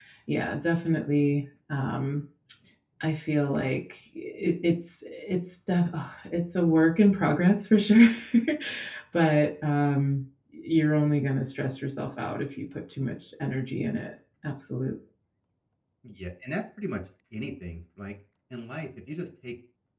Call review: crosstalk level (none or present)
none